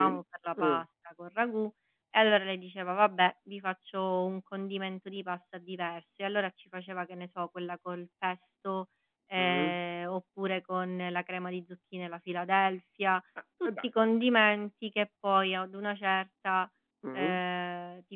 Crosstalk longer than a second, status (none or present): none